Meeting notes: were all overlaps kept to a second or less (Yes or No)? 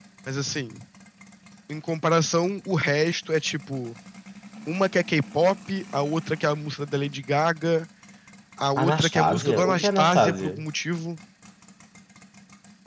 No